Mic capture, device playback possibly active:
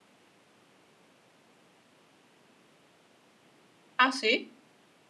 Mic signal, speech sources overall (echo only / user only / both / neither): user only